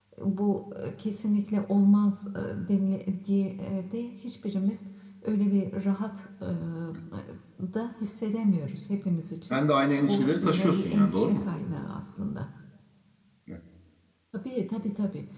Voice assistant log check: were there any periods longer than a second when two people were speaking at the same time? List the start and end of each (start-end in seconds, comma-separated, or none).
10.1-11.4